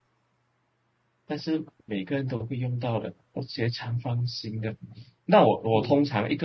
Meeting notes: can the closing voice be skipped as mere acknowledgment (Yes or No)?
Yes